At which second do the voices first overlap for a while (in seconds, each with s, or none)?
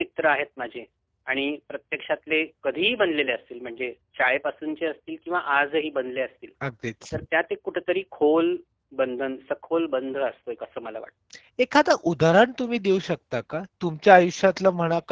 none